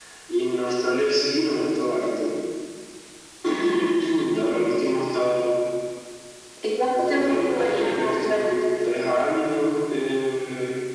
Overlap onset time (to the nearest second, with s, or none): 7 s